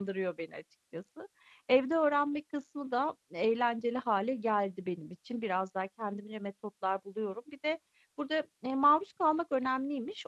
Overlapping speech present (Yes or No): No